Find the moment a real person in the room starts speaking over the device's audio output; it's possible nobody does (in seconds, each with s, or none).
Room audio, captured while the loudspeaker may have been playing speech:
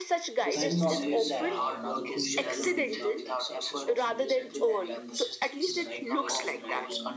0.5 s